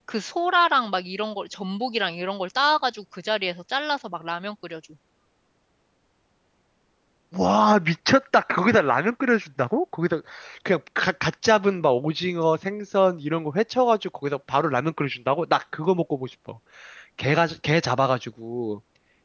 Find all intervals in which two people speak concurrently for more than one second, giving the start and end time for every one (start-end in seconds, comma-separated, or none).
none